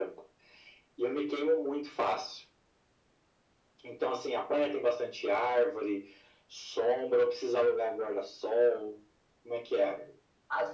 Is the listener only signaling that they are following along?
No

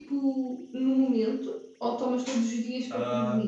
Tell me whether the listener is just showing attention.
No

